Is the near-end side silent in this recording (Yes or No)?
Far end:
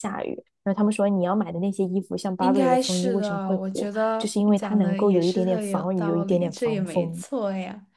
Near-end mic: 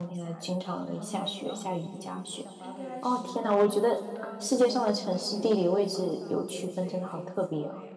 No